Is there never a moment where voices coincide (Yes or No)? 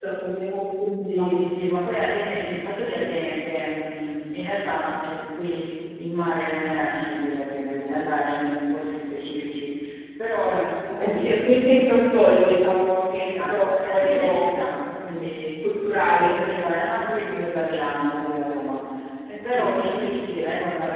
No